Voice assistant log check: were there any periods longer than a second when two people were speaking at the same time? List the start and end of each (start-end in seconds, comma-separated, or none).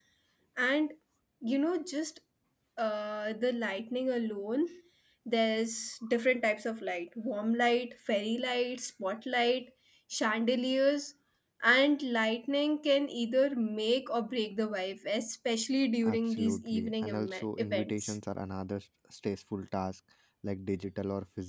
16.0-18.1